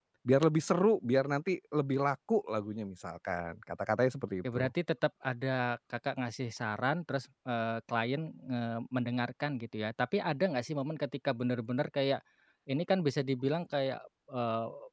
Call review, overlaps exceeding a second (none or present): none